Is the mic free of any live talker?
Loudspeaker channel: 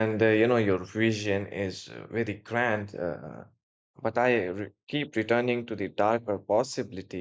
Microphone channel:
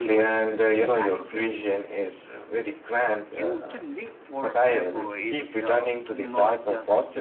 No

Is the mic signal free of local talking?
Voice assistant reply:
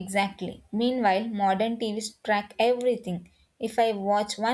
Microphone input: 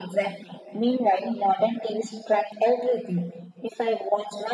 Yes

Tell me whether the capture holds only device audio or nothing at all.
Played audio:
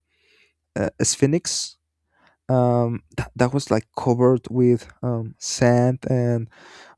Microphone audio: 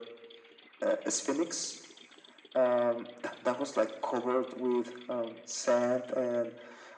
Yes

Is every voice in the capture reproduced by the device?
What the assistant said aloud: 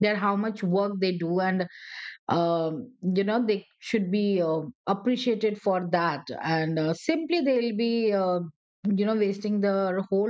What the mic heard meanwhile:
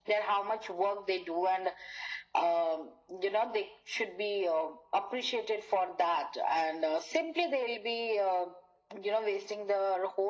Yes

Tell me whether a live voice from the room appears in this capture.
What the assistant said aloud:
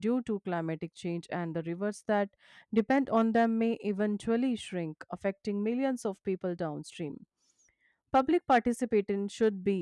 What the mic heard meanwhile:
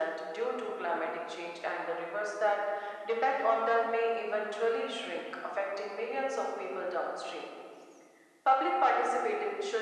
No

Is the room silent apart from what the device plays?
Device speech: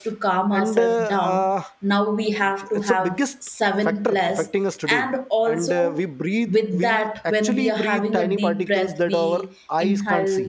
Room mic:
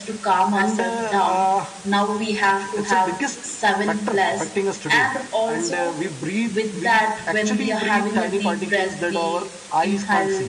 Yes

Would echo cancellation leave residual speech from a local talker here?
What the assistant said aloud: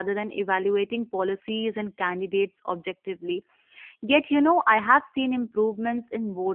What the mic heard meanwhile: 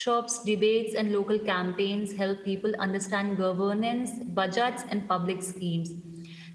Yes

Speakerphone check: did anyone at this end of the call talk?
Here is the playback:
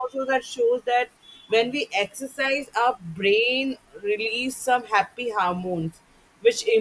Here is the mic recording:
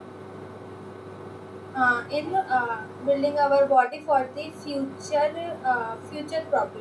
Yes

